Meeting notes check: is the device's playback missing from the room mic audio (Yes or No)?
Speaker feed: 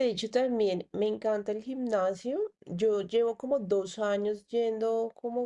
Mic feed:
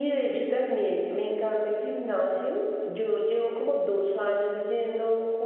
No